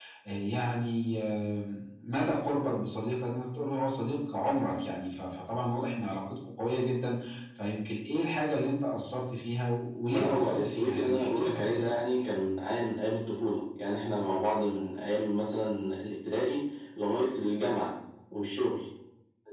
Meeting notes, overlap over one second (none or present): present